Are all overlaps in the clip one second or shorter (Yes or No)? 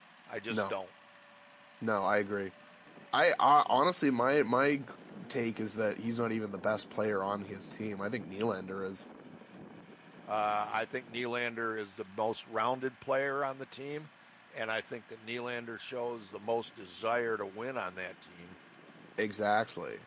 Yes